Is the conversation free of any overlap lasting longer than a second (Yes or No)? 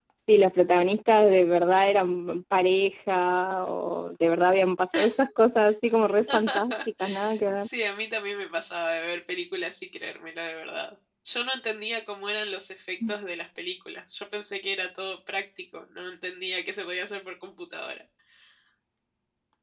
Yes